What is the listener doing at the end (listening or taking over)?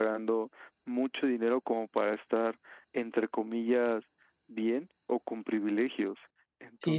taking over